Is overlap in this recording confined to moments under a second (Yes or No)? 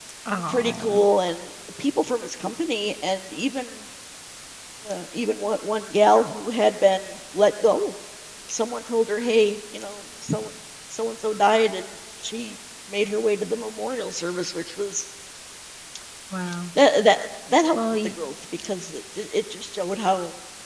Yes